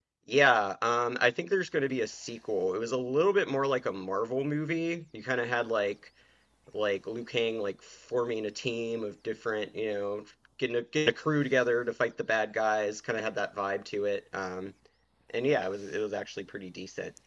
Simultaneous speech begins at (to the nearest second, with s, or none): none